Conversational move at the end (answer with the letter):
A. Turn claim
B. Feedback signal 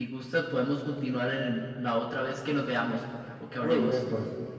A